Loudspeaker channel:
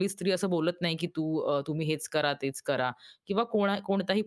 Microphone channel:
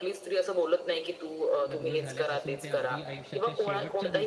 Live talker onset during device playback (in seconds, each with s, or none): 1.7 s